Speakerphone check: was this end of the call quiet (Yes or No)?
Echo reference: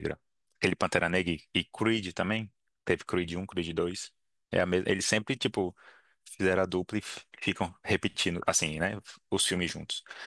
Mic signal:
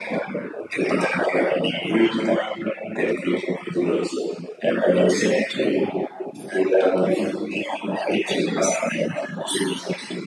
Yes